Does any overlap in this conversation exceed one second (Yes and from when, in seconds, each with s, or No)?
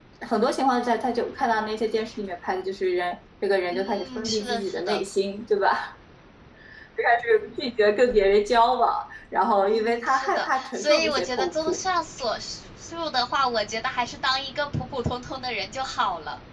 Yes, from 3.7 s